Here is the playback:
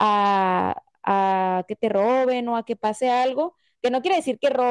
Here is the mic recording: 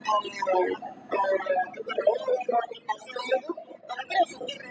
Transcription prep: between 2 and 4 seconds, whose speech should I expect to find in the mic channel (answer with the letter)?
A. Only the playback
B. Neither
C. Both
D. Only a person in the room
A